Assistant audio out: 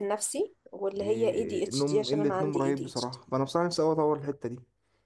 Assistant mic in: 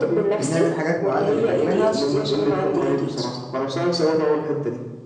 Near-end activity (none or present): present